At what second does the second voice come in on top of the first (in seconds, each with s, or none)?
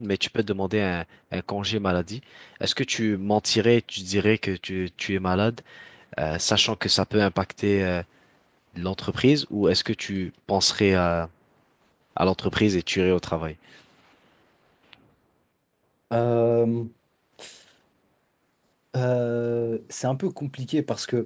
none